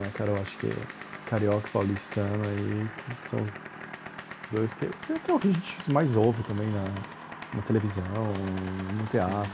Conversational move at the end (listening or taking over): listening